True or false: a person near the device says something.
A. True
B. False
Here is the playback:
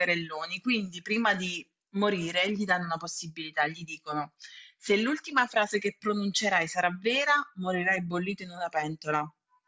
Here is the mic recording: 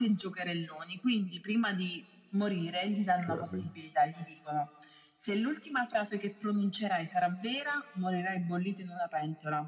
A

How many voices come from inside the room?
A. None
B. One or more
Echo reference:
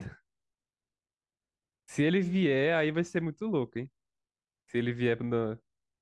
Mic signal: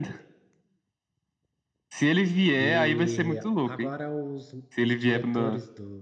B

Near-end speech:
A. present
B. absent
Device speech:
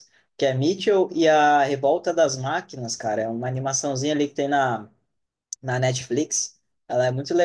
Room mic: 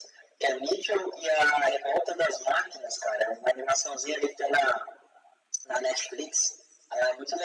B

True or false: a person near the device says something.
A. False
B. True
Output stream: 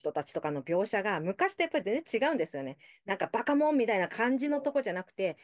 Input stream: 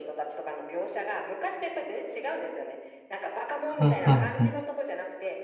B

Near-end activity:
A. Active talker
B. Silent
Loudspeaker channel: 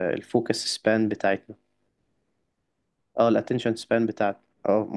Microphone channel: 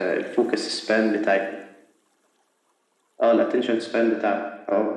B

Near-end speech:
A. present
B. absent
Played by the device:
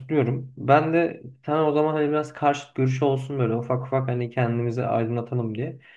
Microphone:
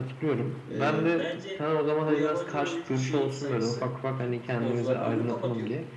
A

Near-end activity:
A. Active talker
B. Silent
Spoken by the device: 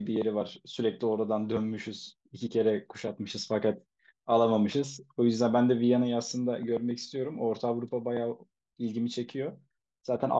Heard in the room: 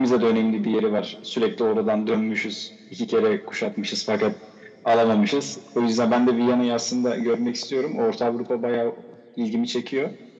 B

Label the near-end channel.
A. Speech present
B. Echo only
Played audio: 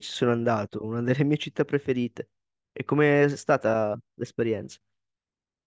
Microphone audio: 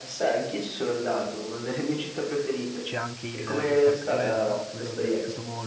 A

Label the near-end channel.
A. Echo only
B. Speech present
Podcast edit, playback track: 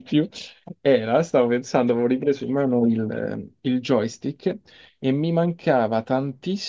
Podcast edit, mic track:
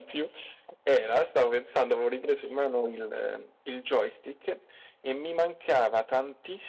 A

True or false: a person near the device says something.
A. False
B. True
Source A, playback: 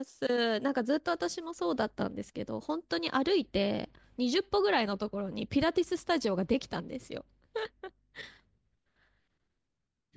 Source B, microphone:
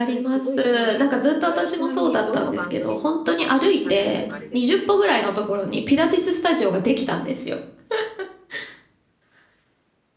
B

